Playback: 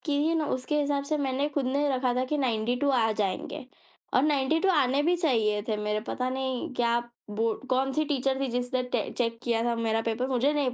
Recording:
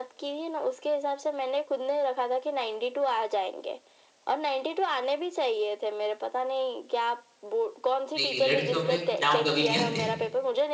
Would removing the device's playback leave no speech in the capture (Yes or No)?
No